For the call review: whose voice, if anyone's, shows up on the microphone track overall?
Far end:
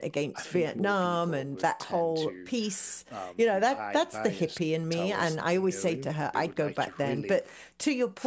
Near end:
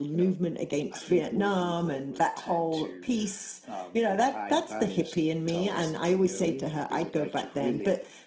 echo only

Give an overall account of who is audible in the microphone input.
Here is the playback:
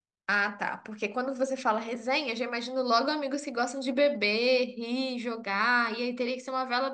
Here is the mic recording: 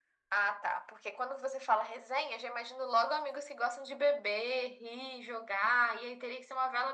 echo only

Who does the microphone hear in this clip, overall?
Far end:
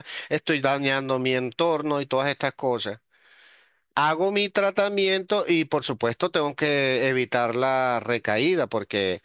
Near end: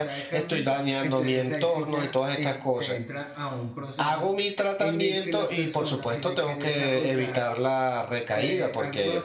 both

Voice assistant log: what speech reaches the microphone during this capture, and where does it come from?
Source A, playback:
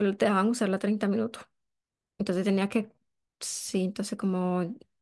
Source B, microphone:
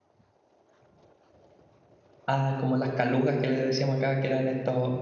user only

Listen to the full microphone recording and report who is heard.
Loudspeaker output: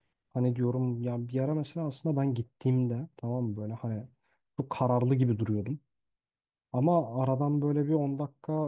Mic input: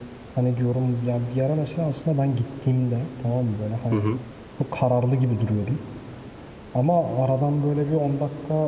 both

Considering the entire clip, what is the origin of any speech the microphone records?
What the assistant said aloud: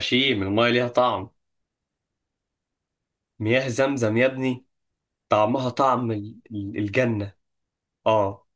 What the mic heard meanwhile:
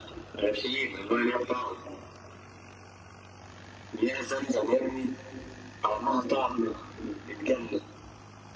echo only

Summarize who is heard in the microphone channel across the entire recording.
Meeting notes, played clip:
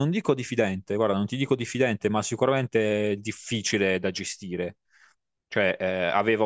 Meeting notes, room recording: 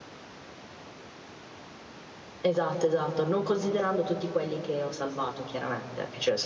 user only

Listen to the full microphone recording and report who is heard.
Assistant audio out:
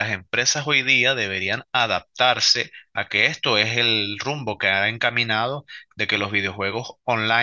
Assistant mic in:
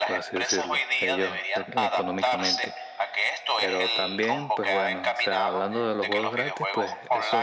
both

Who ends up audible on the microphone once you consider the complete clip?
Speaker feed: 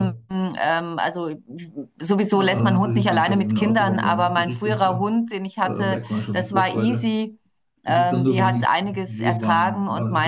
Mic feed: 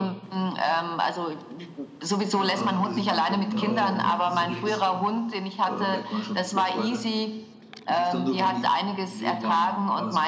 both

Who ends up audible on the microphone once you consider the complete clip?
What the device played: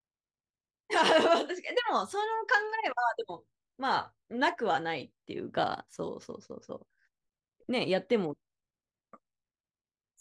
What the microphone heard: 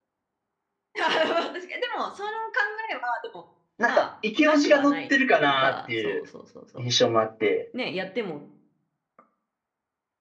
both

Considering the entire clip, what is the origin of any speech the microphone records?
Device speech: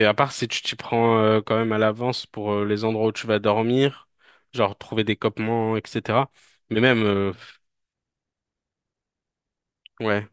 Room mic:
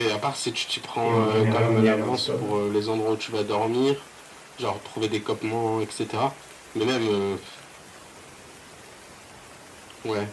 both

